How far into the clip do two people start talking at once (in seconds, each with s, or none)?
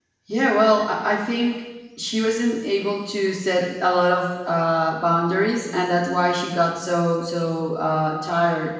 none